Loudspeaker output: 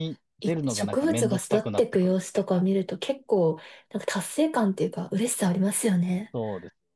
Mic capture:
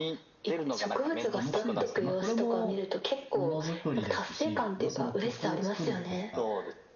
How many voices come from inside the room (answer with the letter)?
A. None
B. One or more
B